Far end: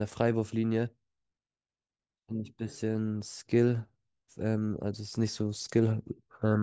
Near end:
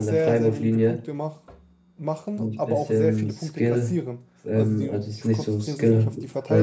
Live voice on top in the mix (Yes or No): No